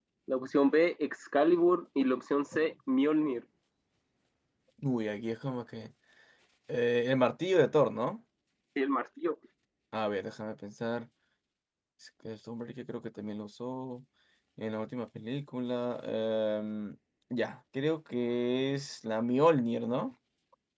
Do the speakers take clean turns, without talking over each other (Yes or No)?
Yes